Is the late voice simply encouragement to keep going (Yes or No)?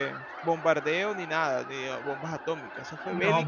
No